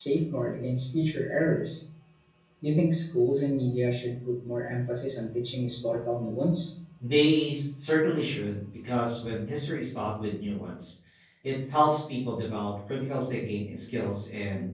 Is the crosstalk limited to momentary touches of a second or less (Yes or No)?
Yes